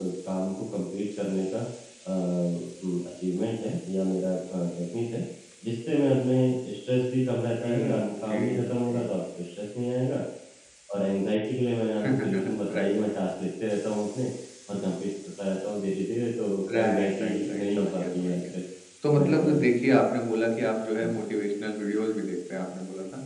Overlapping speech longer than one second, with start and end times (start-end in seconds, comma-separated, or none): 7.6-9.1, 16.7-18.3